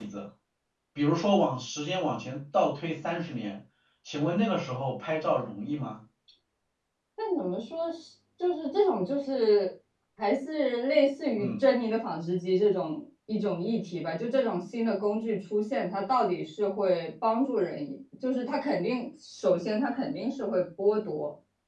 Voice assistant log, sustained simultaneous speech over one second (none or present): none